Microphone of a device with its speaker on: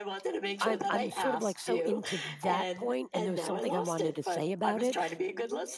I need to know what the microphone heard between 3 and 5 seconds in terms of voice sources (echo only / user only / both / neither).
both